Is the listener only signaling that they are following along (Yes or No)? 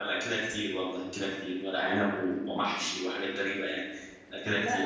No